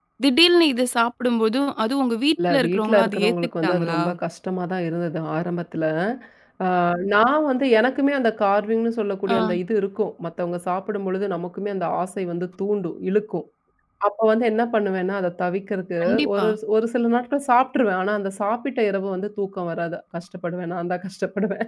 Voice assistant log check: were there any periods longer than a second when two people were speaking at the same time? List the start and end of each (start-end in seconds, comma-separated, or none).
2.5-4.0